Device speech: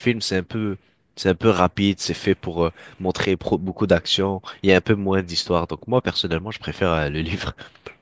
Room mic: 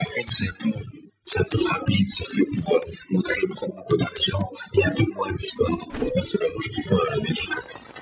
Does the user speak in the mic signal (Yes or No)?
No